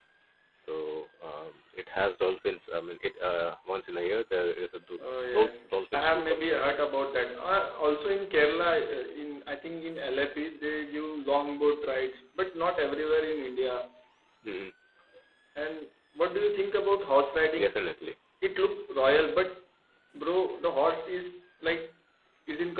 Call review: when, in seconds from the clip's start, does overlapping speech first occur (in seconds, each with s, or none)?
5.2 s